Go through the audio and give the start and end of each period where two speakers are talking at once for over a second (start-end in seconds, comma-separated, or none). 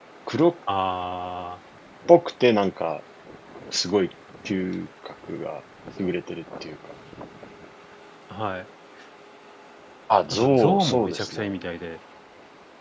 10.3-11.5